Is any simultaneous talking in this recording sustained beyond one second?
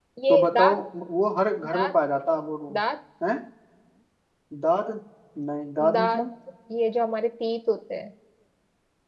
No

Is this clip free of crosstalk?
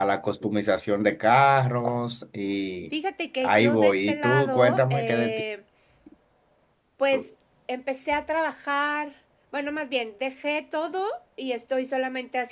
No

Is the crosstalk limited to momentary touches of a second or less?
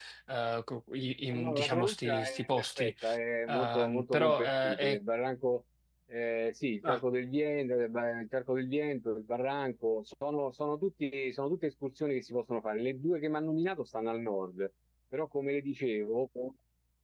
No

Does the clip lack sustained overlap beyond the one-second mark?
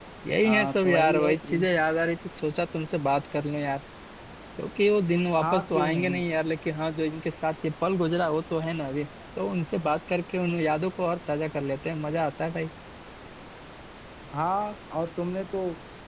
No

